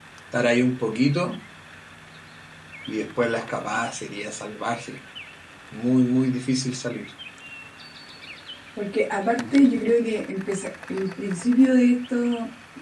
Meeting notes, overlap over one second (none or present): none